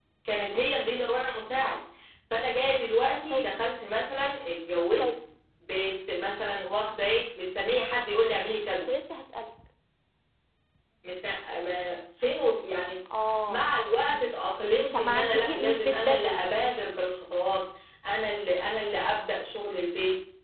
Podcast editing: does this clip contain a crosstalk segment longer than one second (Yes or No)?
Yes